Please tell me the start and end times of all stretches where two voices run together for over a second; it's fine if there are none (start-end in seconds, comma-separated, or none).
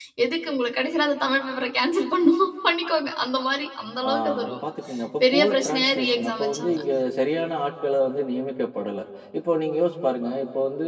5.3-6.8